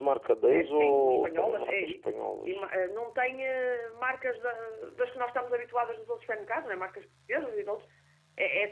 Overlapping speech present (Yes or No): Yes